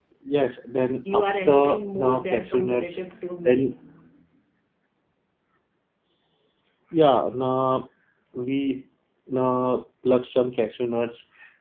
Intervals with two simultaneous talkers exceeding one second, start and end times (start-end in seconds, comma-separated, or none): 1.1-3.0